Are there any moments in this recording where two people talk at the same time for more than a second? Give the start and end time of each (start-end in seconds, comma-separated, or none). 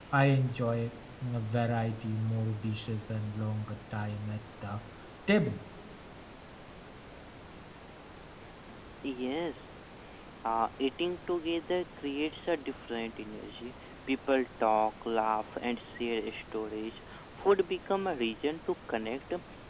none